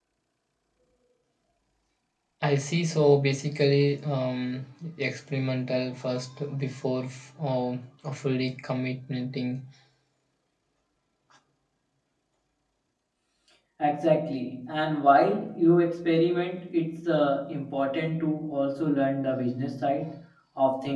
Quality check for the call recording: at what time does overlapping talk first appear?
none

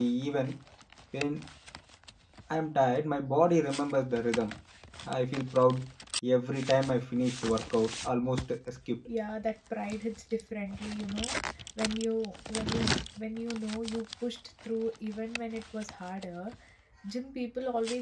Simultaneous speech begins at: none

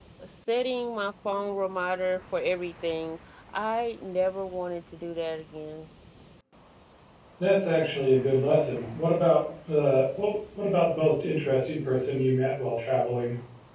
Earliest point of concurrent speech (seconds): none

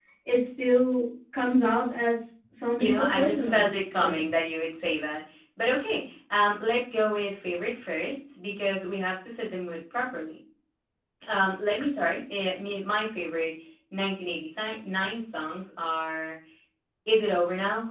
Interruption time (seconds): 3 s

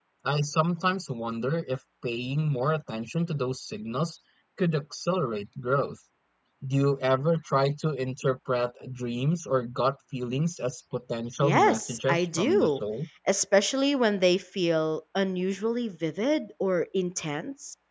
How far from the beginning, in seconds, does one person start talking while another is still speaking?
11 s

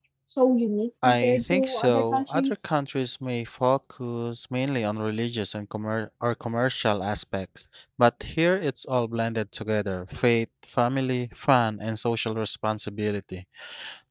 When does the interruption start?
1 s

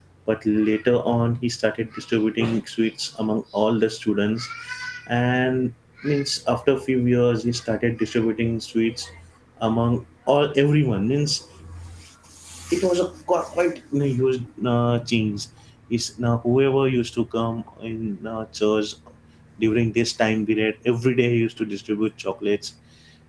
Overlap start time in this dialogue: none

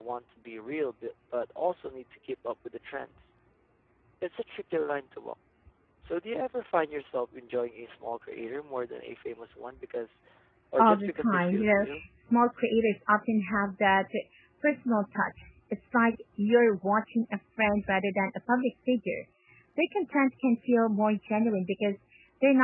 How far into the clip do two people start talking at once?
11 s

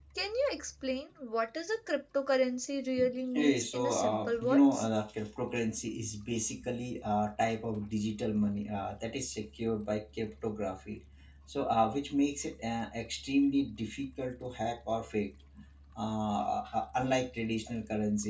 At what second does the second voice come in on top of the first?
3 s

